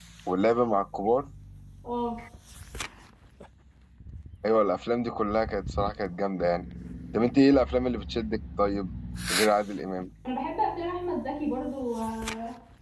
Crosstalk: none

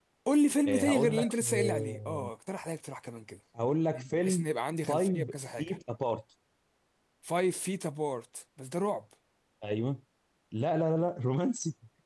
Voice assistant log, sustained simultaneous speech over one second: present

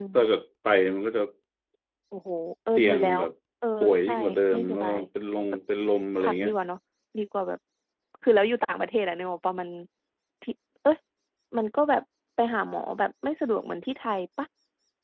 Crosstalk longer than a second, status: none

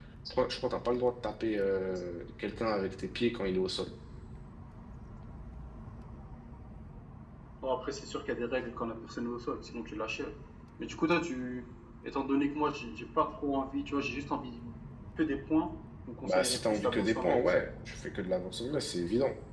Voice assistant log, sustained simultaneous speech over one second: present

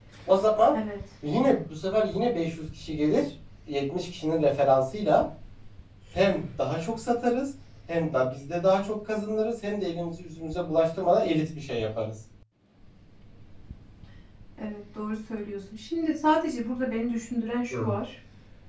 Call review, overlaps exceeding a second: none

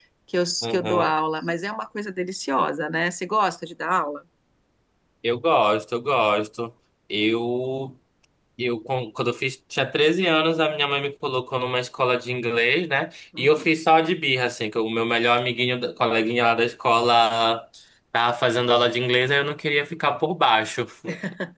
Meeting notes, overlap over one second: none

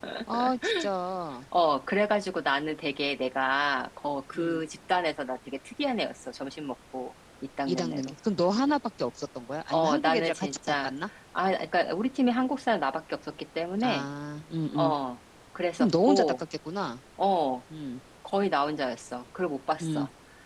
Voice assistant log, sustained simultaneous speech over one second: present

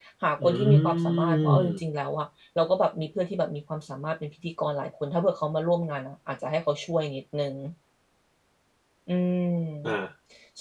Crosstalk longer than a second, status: present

